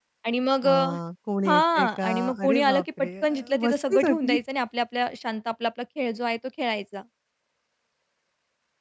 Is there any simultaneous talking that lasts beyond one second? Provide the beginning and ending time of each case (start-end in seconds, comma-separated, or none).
1.5-4.4